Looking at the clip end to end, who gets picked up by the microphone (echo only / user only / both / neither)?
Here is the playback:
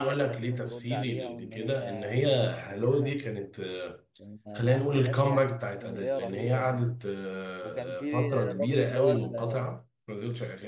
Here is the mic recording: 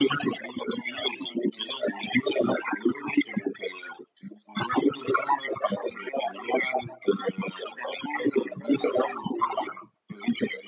echo only